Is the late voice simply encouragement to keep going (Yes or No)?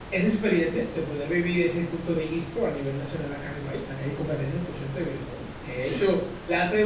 Yes